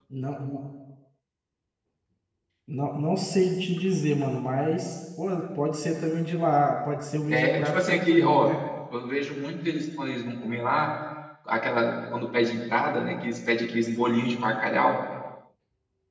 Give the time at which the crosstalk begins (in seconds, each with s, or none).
7.3 s